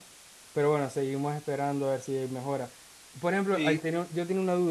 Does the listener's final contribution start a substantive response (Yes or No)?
No